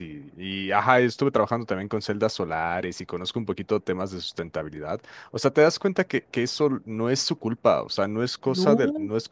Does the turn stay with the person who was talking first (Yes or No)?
Yes